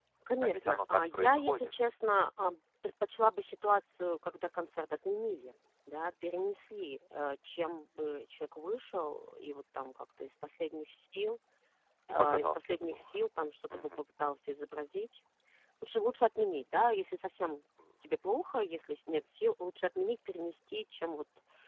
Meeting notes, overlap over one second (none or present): present